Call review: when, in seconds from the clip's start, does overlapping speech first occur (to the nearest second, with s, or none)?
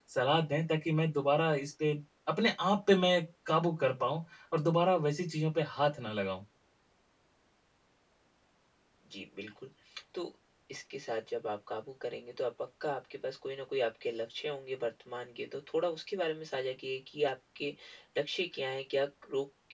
none